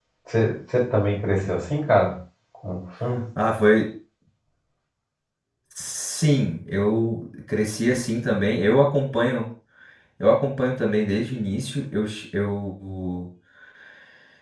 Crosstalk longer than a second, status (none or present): none